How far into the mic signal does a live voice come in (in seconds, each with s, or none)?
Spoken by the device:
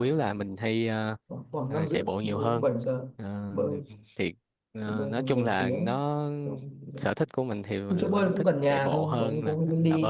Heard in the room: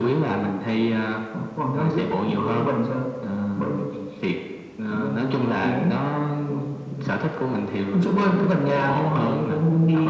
none